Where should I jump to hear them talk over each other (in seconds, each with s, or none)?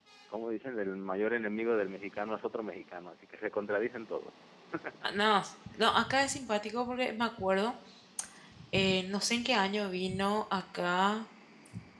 none